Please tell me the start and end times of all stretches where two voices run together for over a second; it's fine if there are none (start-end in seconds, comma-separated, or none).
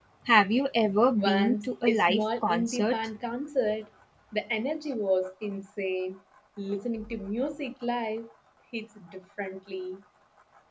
1.1-3.0